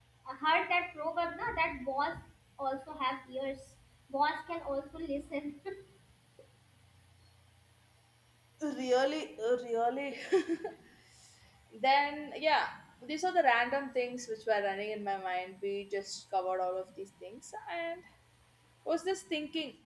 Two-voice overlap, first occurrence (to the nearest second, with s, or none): none